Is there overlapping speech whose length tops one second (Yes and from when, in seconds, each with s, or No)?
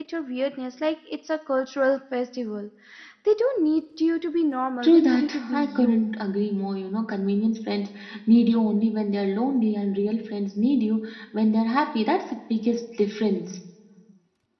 Yes, from 4.8 s